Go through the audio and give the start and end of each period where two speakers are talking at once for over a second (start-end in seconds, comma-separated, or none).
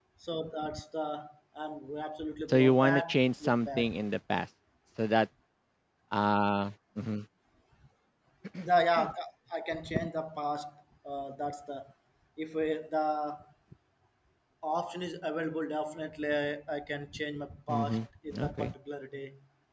2.5-3.9